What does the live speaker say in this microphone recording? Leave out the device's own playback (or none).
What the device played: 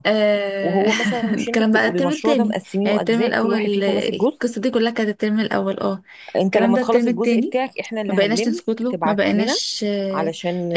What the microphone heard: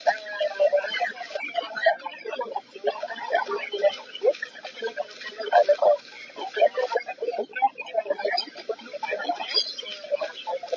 none